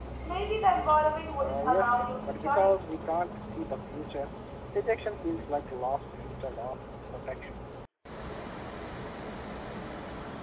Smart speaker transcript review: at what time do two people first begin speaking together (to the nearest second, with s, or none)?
1 s